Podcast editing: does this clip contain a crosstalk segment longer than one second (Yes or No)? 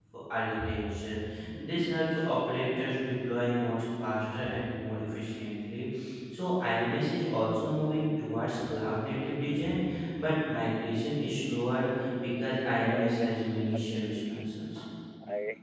Yes